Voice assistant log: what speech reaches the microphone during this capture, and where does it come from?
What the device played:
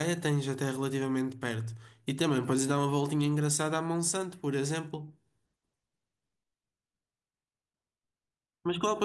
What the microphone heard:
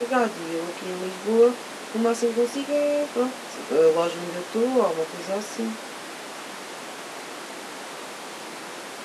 user only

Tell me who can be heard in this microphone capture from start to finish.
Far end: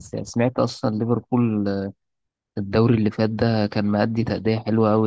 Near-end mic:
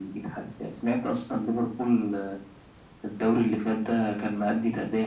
echo only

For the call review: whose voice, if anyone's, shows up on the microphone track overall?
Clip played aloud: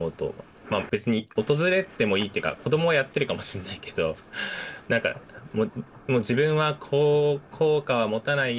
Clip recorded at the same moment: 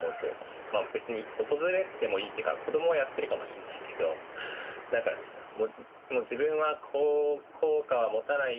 echo only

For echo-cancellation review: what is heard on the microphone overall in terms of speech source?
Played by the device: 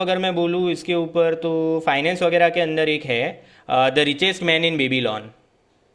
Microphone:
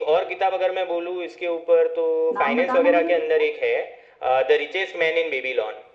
both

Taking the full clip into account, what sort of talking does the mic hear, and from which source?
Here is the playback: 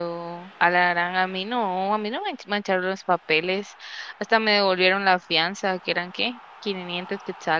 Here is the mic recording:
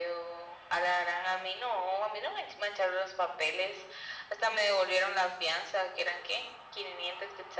echo only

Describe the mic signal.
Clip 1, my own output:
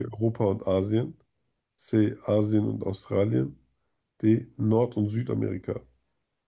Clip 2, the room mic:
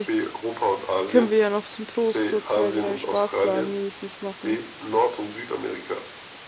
both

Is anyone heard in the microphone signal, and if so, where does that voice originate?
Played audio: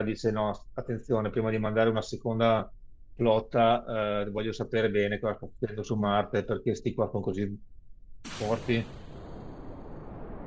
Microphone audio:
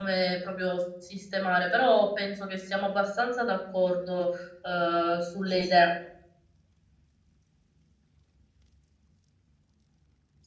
user only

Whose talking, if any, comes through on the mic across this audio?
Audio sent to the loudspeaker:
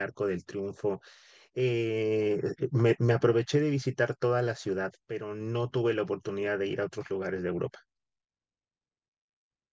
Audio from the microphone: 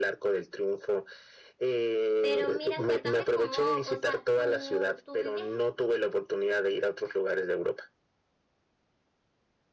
both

